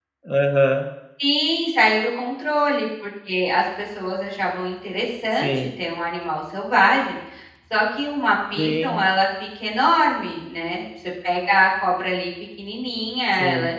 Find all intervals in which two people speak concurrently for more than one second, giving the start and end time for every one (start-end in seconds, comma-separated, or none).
none